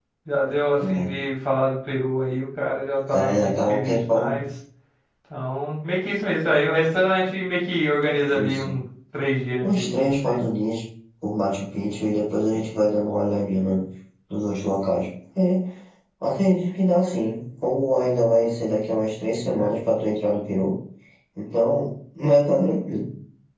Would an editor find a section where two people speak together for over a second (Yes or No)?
Yes